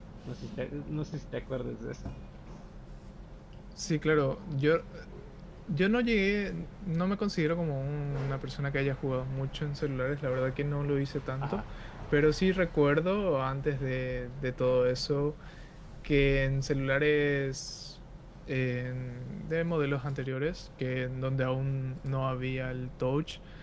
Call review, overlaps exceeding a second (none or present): none